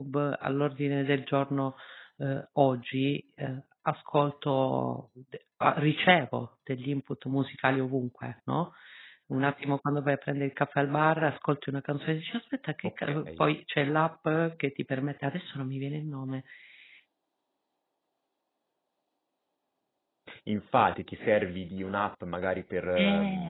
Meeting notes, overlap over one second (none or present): none